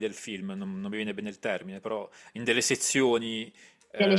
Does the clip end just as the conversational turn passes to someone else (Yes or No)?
No